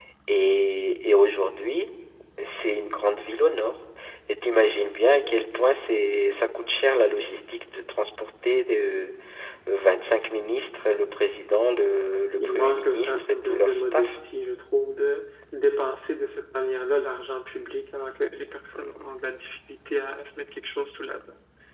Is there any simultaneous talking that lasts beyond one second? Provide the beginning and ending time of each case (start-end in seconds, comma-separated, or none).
12.4-14.2